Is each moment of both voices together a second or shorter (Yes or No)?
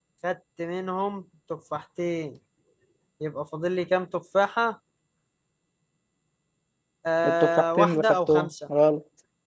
No